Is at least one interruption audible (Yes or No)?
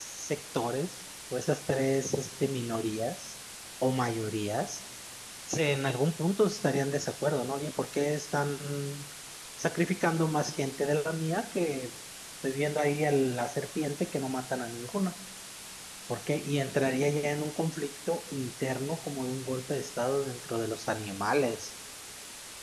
No